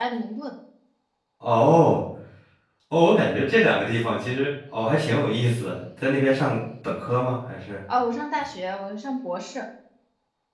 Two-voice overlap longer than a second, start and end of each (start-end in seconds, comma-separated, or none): none